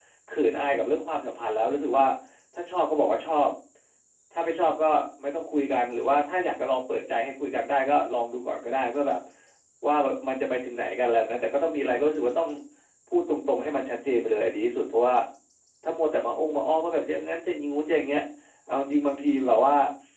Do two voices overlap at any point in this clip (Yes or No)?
No